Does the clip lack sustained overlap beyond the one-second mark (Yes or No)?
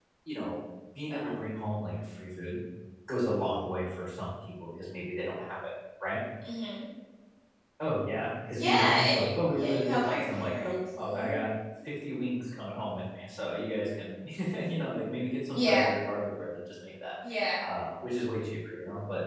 No